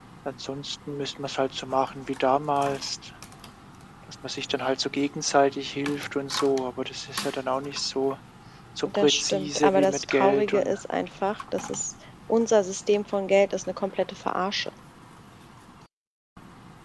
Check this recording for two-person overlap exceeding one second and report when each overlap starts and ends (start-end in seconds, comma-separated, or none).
8.8-10.8